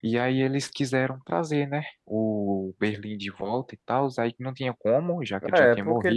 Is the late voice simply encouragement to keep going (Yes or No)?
No